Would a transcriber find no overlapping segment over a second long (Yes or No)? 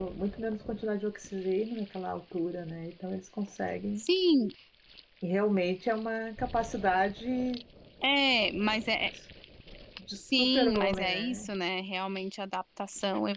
No